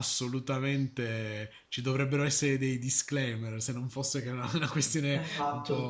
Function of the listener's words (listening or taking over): taking over